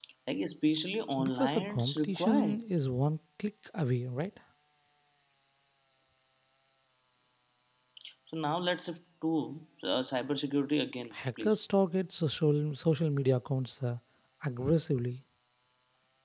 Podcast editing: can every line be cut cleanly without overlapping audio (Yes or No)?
No